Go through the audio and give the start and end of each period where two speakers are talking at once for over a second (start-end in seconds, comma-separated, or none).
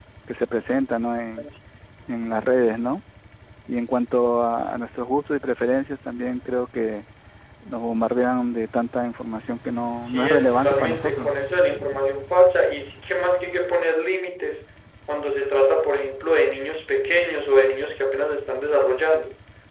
10.0-11.3